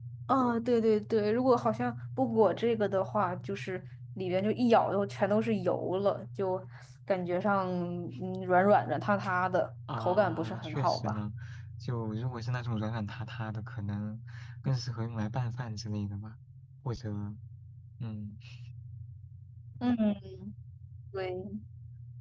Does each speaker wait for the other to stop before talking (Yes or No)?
No